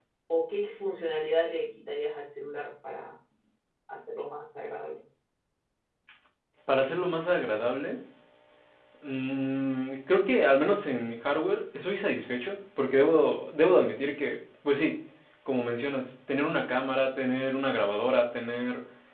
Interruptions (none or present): none